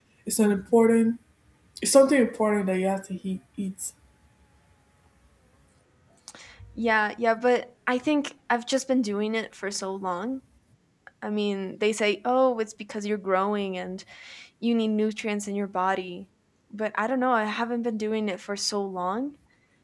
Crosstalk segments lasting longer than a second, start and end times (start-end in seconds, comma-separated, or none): none